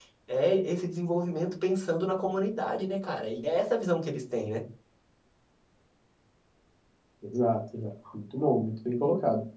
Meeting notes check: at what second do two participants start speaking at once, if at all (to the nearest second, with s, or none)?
none